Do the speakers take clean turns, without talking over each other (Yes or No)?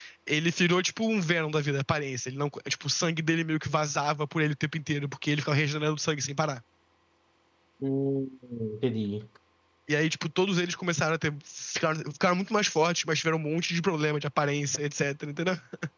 Yes